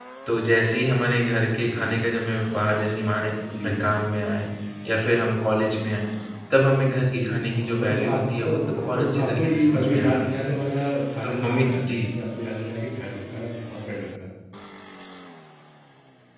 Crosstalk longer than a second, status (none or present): present